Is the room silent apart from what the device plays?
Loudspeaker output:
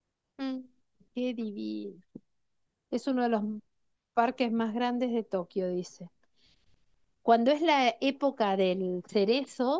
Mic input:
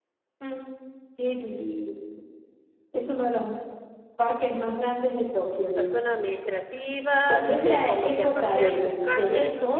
No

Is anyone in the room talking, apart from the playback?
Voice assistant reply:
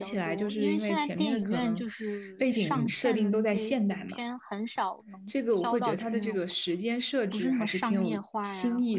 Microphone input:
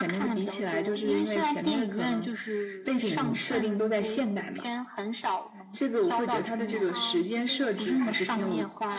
Yes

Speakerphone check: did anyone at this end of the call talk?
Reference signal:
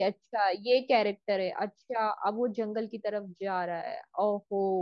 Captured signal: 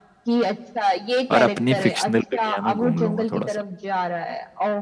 Yes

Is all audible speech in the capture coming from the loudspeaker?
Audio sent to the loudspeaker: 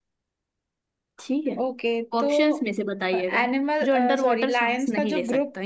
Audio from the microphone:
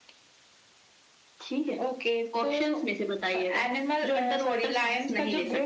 Yes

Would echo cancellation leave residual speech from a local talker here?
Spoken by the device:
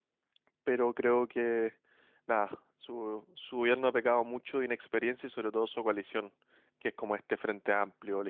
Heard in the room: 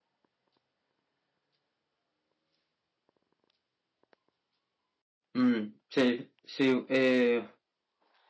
Yes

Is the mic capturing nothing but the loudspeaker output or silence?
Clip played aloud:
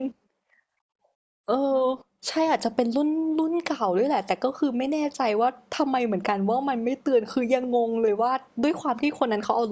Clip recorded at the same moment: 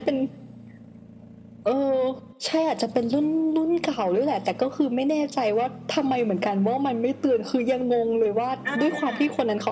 No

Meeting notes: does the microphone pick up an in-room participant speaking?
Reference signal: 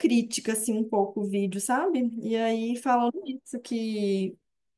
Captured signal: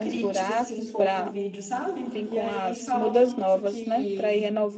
Yes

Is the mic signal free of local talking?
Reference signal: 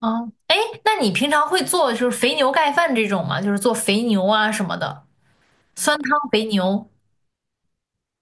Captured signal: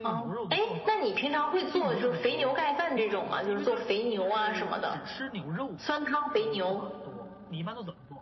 No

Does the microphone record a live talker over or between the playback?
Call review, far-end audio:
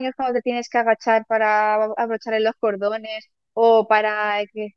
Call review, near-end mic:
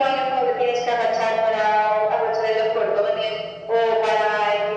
No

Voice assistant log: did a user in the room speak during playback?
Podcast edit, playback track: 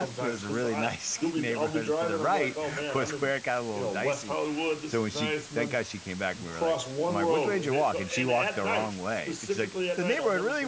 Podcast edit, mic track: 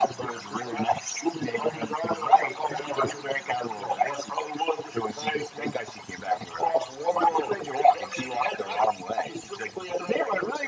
No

